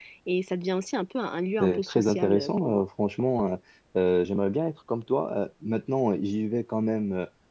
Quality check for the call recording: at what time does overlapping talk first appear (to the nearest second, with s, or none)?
2 s